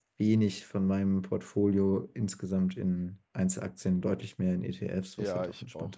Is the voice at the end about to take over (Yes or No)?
Yes